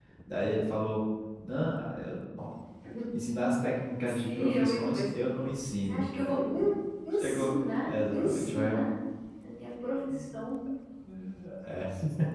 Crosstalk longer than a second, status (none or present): present